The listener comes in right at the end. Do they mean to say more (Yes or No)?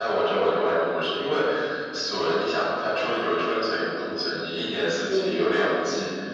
No